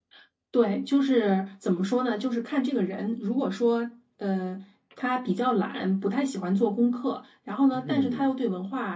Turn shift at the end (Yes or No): No